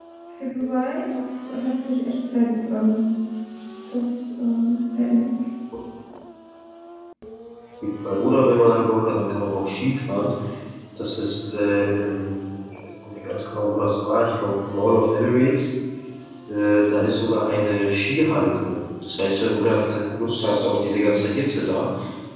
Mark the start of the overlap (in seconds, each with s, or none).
none